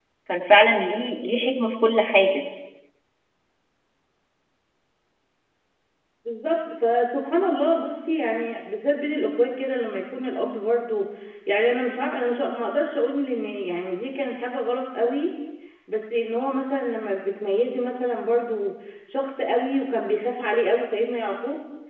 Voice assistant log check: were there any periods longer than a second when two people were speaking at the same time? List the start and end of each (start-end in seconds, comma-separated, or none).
none